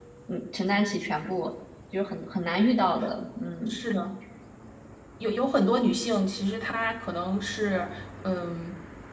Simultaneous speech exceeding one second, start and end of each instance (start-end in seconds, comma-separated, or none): none